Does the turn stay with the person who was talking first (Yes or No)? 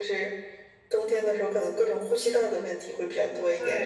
No